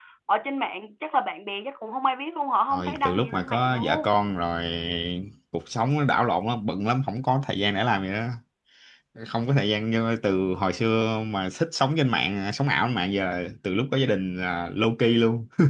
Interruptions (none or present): present